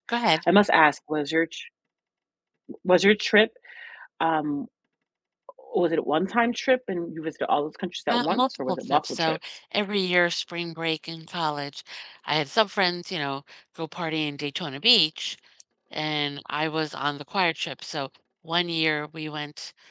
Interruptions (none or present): present